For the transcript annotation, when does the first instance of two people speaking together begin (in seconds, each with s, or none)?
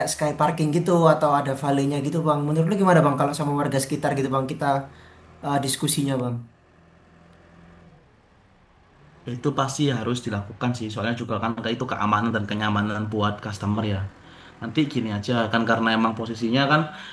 none